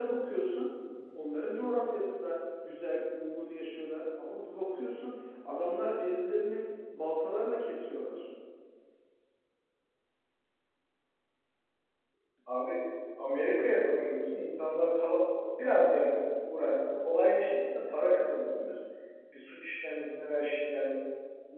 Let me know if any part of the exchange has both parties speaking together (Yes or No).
No